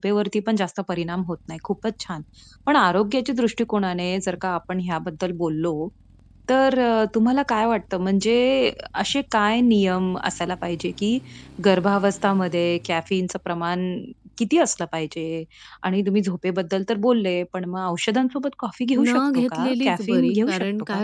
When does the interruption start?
19.0 s

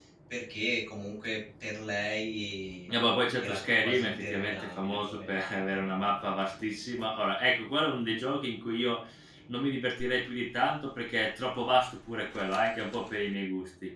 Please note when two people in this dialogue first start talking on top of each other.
3.4 s

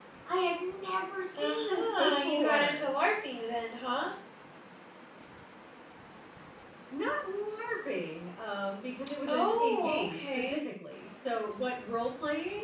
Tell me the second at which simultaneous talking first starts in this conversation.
1.4 s

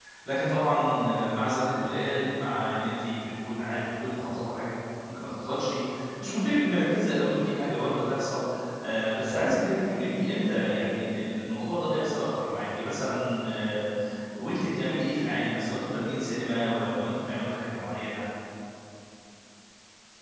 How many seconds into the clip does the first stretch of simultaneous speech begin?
none

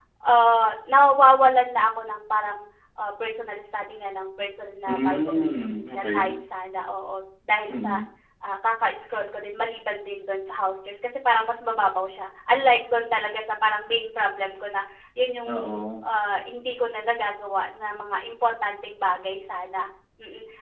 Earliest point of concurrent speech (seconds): 4.9 s

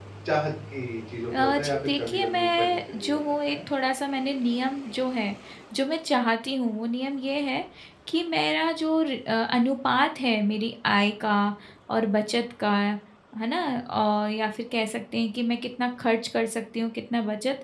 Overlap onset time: 1.3 s

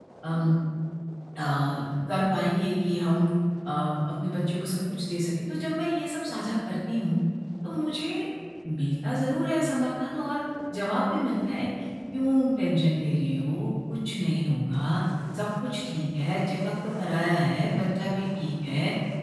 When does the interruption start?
none

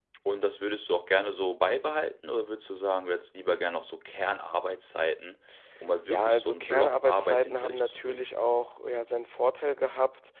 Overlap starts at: 6.0 s

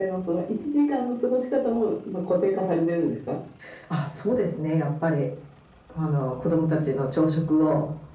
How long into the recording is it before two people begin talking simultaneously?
none

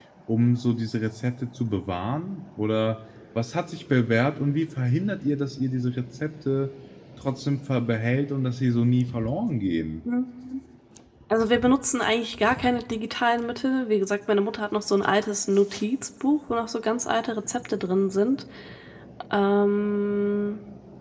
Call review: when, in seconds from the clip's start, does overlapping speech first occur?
none

